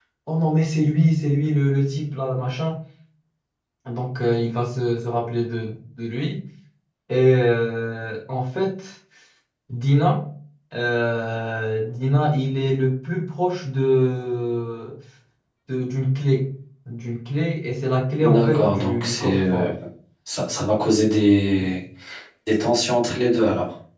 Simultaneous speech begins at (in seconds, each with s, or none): 18.2 s